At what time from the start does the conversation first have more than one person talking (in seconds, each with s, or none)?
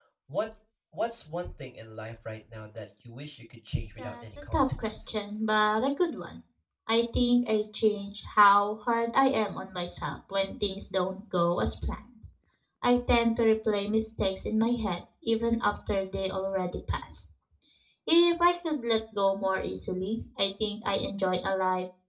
4.0 s